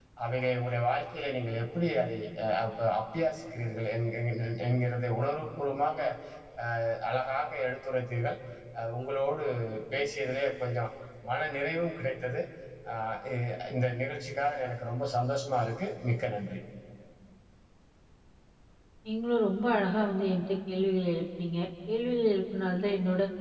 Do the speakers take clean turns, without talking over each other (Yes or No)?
Yes